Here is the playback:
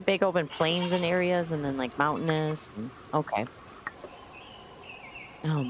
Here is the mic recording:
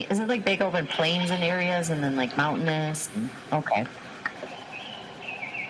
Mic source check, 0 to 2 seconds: echo only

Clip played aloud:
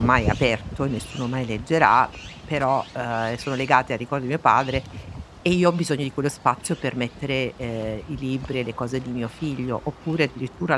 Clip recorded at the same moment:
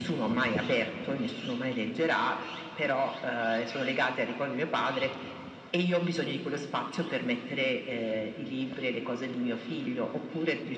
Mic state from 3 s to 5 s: echo only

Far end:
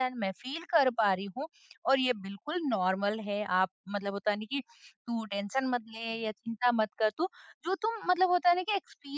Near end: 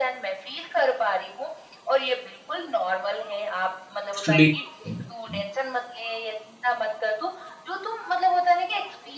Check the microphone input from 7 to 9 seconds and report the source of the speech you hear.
echo only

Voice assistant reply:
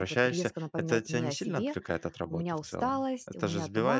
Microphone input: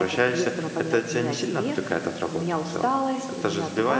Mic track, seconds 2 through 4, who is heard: echo only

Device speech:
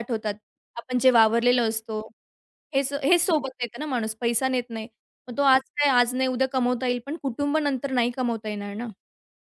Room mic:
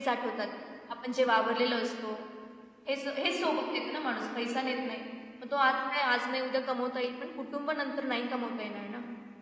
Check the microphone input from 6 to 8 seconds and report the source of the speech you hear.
echo only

